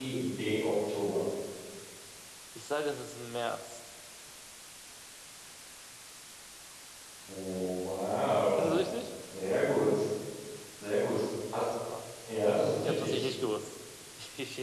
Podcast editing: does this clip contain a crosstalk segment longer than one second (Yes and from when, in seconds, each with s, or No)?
No